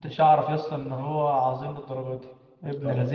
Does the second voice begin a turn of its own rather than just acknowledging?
Yes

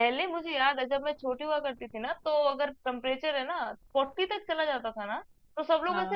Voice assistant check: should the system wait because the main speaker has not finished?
Yes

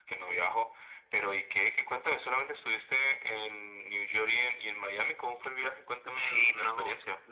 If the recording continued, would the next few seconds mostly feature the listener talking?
Yes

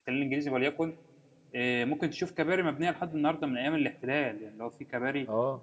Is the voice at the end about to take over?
Yes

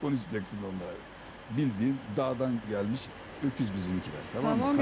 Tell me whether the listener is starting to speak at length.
Yes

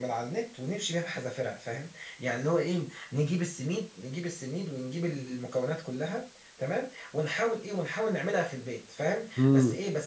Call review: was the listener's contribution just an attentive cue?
Yes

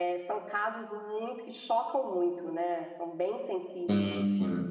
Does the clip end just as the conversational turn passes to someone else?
Yes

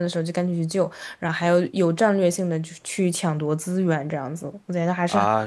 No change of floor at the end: No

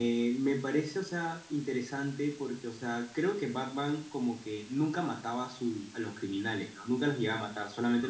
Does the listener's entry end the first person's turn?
No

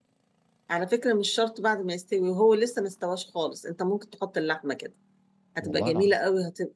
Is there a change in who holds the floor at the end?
No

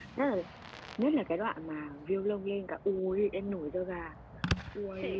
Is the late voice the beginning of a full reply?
Yes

